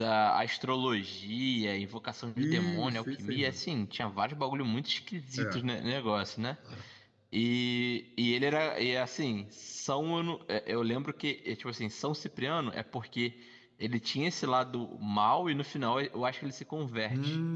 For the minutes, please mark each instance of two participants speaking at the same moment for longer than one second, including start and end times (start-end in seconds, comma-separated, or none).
2.4-3.6